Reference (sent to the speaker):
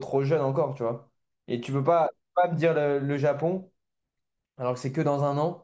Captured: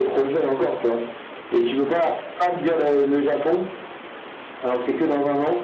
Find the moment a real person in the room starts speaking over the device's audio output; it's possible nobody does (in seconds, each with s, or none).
none